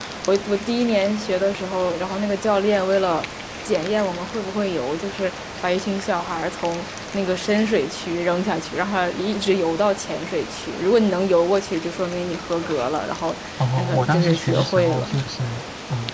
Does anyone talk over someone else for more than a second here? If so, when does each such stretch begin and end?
13.8-15.2

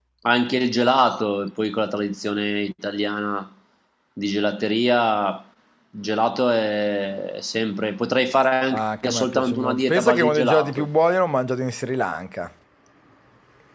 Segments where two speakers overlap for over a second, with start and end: 8.7-10.9

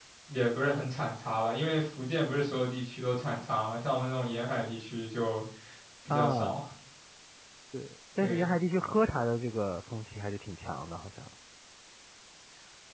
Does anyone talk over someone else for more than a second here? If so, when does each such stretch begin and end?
none

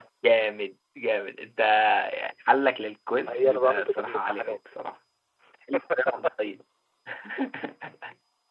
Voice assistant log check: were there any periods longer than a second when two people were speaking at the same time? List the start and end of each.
3.2-4.6

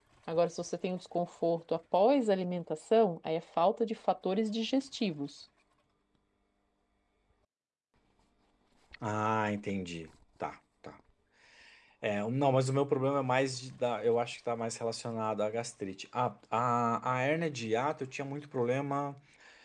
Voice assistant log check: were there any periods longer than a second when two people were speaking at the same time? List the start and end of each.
none

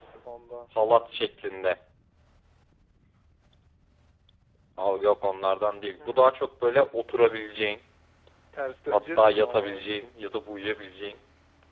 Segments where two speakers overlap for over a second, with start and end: 8.9-10.2

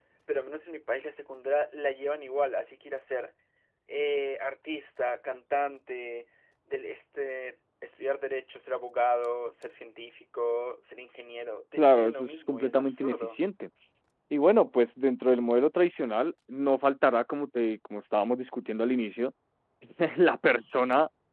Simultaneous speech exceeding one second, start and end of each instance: 11.8-13.4

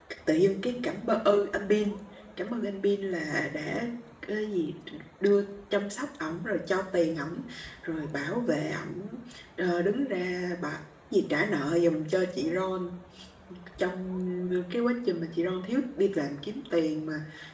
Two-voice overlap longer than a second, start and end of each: none

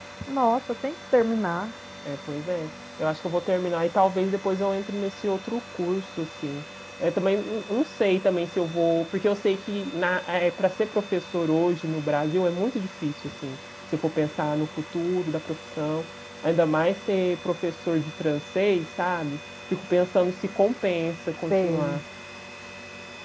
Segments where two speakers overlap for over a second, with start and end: none

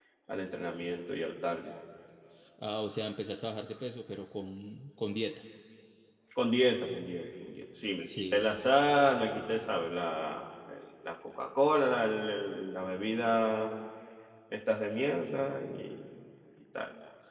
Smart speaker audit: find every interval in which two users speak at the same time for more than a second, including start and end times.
none

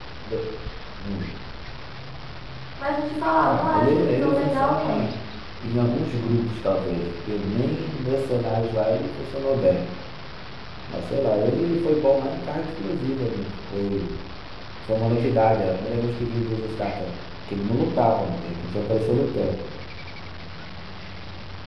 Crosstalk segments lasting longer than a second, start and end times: 3.4-5.1

